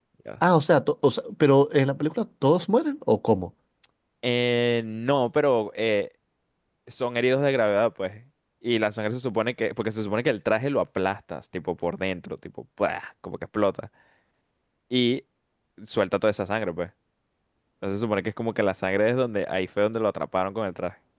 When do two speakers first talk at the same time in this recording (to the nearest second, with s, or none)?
none